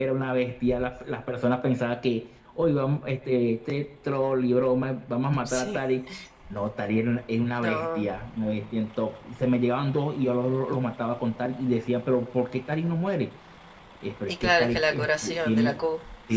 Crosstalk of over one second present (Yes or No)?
Yes